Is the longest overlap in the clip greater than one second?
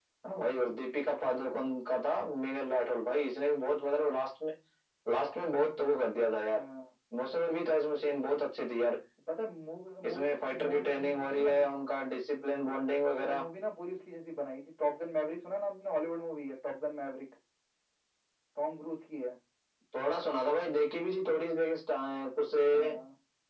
Yes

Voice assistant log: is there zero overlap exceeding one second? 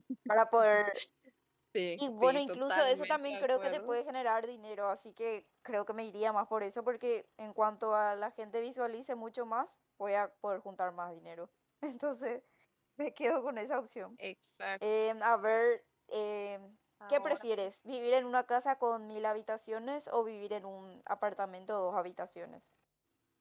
No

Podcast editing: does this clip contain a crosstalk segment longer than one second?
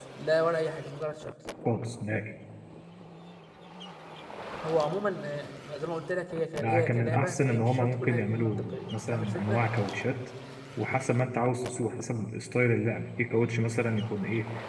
Yes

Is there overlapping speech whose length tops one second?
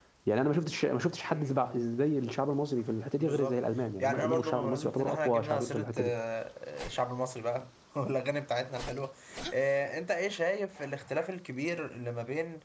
Yes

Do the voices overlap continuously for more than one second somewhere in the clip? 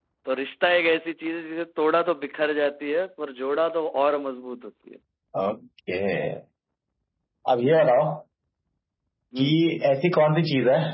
No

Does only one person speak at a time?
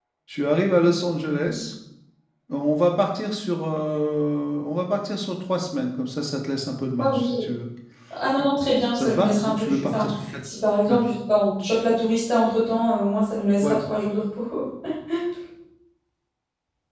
No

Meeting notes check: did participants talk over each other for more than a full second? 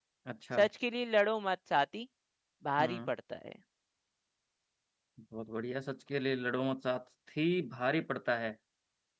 No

